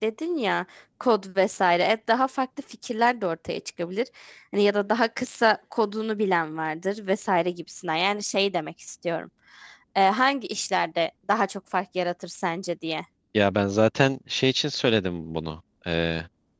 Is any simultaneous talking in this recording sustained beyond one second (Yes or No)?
No